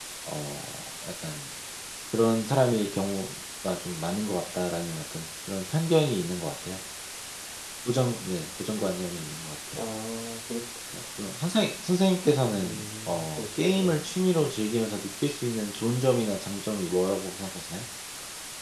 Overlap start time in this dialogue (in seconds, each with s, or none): 12.5 s